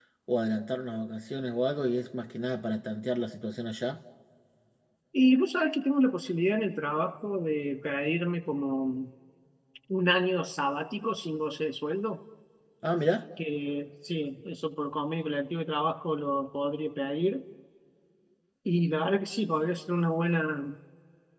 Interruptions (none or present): none